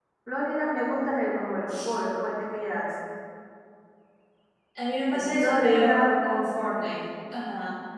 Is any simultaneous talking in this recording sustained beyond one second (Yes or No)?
Yes